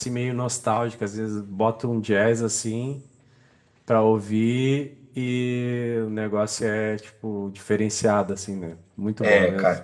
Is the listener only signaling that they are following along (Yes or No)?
No